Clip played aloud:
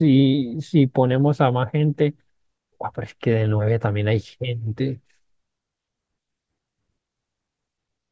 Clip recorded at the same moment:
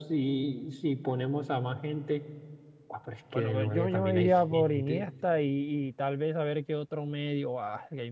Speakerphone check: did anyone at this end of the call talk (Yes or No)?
Yes